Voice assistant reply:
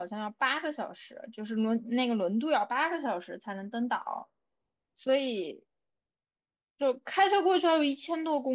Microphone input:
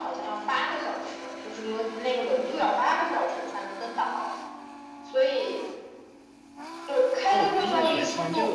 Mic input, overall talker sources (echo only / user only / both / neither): both